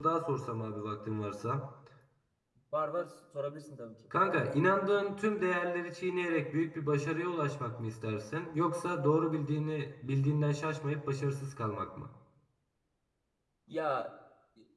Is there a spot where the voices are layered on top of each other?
No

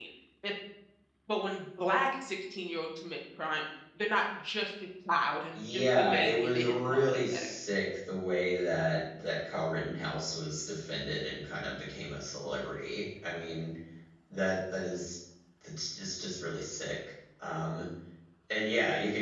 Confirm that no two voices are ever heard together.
No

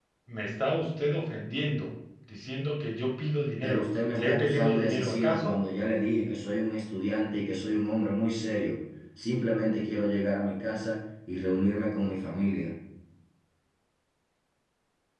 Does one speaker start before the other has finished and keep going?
Yes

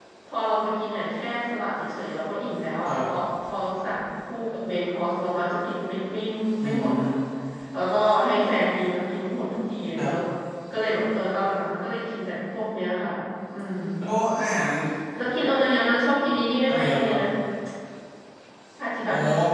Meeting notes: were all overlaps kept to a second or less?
Yes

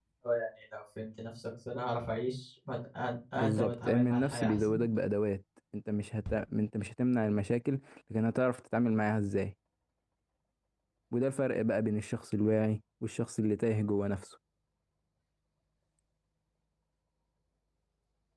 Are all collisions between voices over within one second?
No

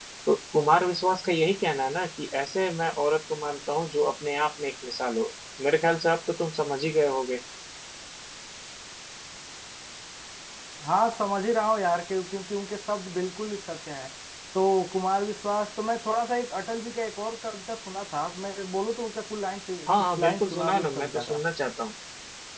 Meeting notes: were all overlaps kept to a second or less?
No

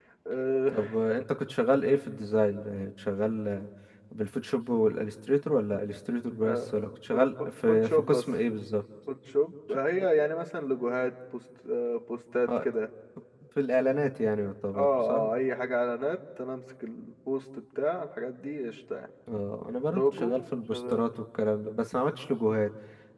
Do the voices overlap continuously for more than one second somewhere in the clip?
Yes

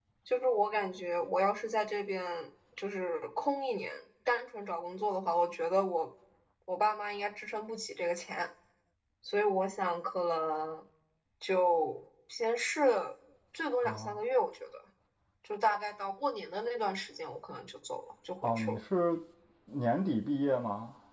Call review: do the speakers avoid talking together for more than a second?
Yes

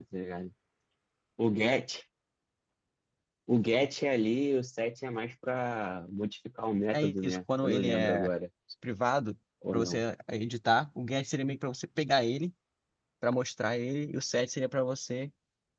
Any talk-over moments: Yes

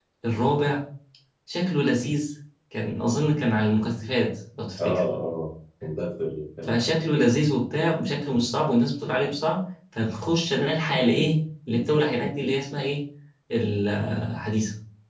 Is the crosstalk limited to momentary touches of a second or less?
Yes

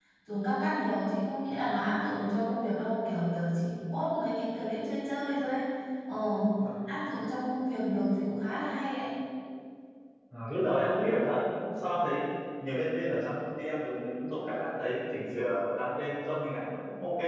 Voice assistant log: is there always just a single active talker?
Yes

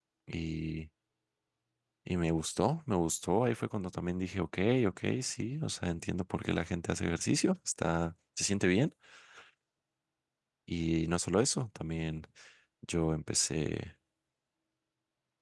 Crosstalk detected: No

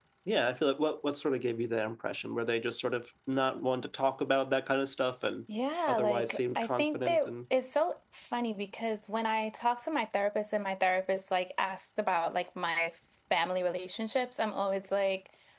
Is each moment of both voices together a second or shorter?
No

